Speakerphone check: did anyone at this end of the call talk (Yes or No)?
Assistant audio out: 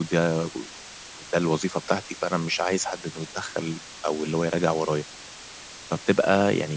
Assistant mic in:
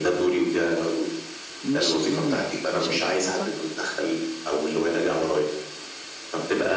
Yes